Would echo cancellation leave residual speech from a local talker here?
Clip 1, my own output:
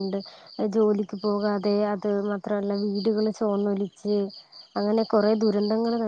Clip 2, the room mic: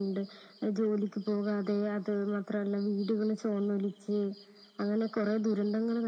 No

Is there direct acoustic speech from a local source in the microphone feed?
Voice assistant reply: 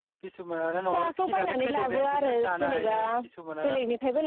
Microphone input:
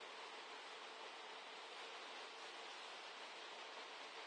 No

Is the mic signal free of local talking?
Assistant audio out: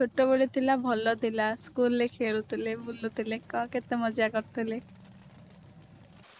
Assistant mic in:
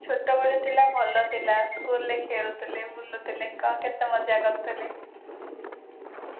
Yes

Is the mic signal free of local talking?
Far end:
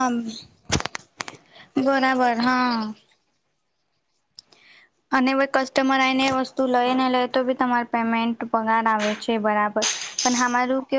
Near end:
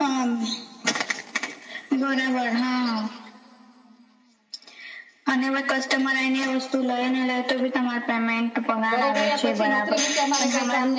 No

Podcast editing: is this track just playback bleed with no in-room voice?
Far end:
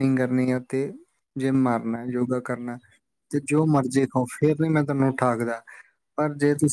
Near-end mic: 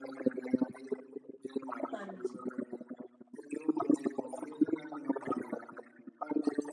No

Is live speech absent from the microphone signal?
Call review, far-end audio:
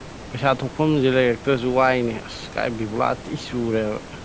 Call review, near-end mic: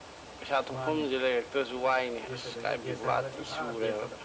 No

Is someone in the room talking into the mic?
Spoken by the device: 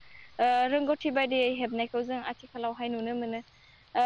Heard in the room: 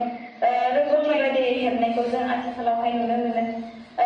Yes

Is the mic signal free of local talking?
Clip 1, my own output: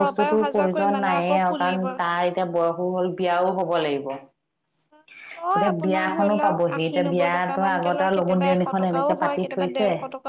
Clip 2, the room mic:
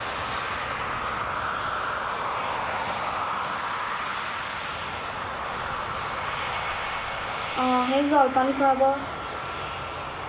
No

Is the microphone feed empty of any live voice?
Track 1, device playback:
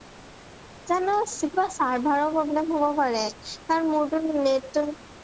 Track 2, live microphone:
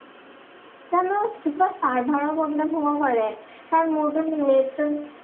Yes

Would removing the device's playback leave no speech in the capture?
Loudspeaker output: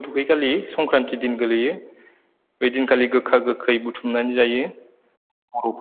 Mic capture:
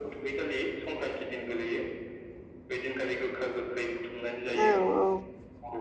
No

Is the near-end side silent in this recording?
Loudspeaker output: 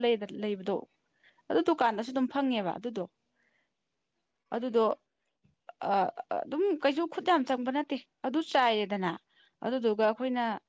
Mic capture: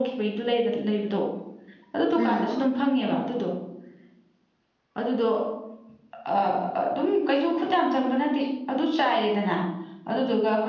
No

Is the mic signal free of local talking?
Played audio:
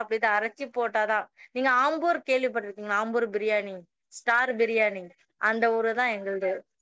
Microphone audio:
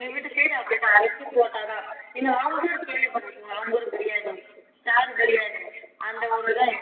Yes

